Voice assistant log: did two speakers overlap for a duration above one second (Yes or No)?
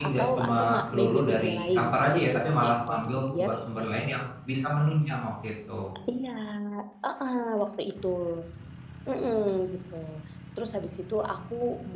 Yes